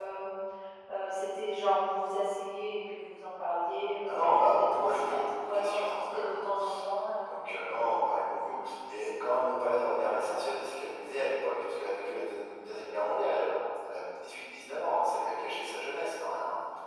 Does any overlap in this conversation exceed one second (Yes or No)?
Yes